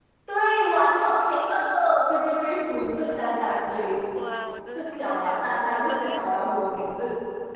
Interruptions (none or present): present